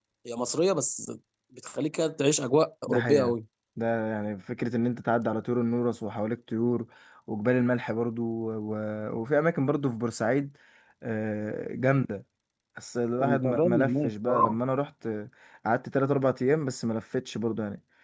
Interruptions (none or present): present